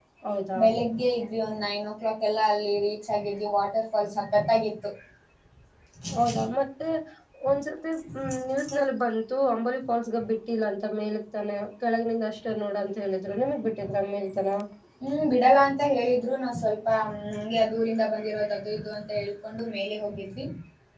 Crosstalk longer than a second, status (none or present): none